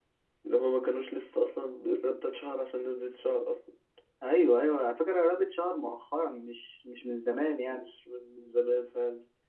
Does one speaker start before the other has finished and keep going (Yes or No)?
No